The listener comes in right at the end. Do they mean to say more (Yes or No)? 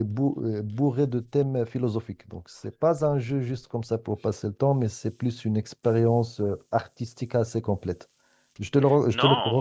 Yes